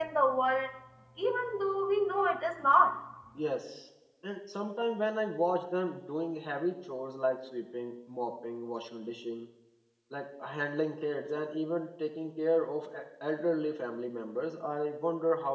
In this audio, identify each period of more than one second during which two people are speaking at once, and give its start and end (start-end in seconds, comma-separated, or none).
none